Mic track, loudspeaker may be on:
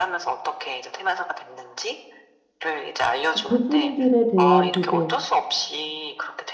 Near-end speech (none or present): present